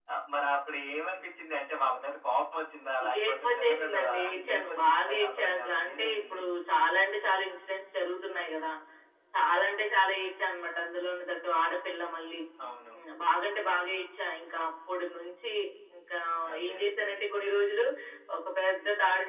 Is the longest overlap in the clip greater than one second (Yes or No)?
Yes